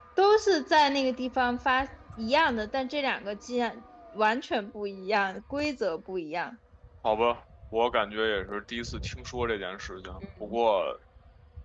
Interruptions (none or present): none